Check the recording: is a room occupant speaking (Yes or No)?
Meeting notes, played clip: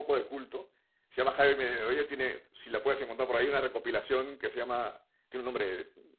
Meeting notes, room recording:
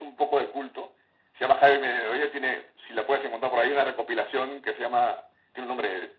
No